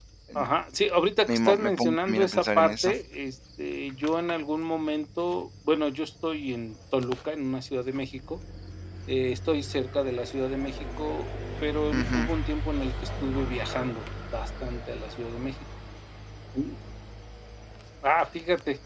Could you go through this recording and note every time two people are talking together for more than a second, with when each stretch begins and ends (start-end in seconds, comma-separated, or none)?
1.3-2.9